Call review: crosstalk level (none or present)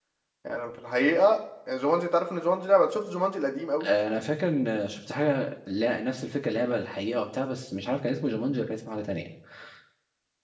none